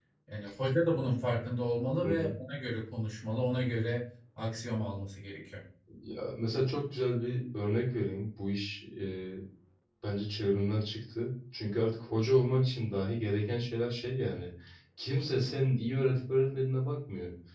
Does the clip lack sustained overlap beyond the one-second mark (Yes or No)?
Yes